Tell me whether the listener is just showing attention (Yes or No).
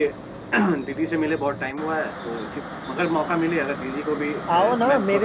No